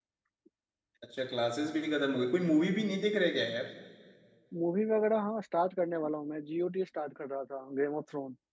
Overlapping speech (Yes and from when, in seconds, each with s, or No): No